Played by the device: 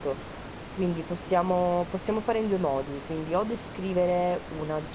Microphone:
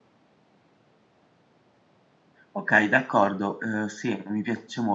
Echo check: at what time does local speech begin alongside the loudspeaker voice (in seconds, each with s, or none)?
2.5 s